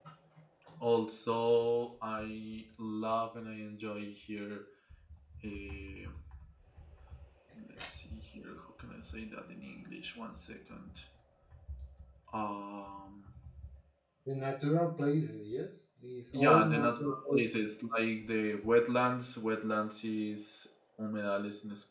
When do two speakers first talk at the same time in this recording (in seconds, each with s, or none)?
16.3 s